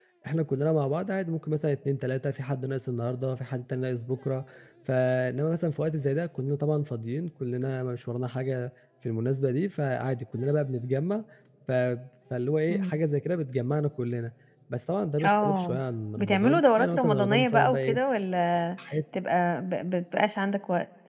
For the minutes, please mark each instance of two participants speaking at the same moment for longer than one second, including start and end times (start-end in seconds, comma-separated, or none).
16.2-18.0